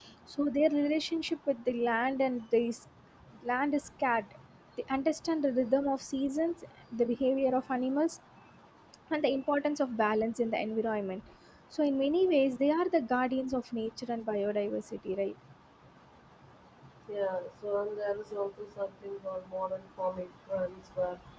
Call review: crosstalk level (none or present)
none